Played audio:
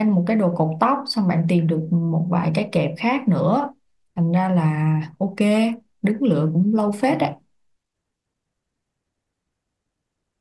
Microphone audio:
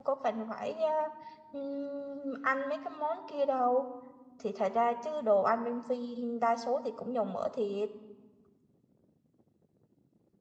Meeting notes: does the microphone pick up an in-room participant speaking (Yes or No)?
Yes